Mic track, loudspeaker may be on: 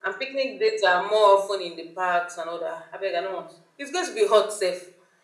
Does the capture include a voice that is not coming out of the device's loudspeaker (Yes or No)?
No